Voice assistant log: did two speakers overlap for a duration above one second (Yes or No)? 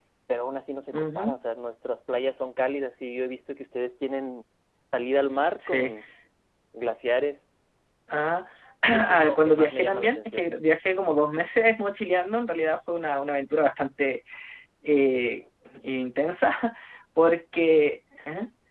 Yes